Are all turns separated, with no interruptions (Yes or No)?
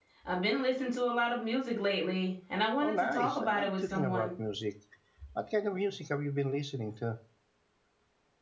No